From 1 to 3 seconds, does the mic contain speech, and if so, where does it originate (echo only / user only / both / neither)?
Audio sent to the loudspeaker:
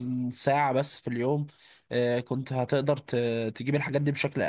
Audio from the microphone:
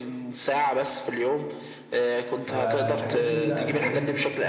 both